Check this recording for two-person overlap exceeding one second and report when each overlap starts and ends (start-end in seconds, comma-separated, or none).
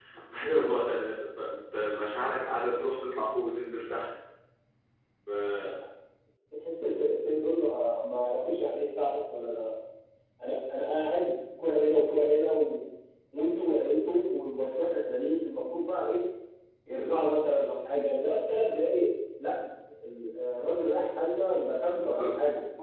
none